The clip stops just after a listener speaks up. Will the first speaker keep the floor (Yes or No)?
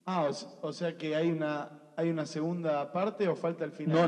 No